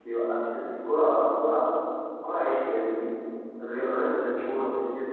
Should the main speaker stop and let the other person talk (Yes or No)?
No